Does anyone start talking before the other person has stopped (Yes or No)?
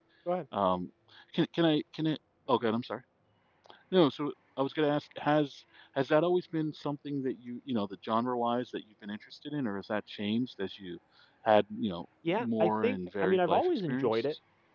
Yes